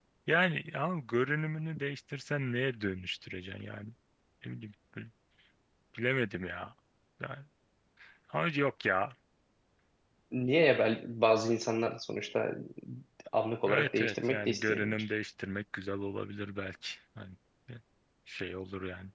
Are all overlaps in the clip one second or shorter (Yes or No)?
No